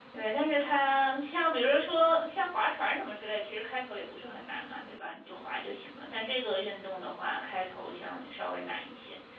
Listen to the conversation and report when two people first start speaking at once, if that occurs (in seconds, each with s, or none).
none